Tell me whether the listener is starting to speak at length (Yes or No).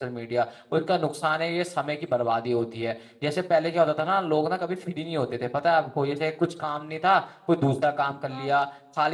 No